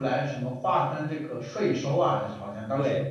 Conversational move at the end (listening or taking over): taking over